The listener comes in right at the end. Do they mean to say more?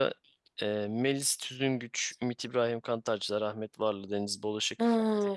Yes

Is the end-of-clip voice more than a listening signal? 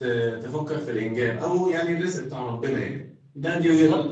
Yes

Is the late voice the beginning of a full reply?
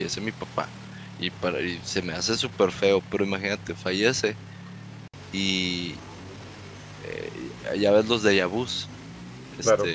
No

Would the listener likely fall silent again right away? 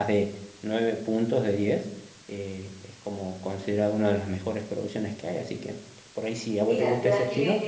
No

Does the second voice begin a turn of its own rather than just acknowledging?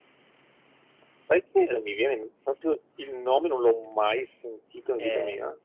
Yes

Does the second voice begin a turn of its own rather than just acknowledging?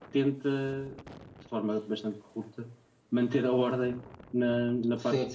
Yes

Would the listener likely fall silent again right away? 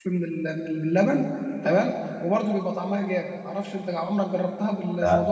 No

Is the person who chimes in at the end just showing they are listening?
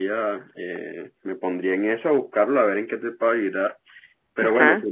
Yes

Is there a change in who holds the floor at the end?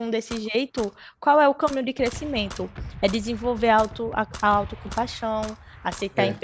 No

